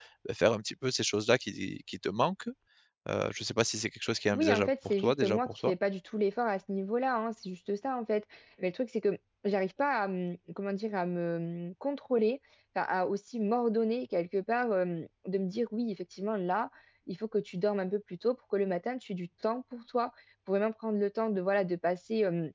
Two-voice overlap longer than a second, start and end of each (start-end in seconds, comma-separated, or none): 4.3-5.7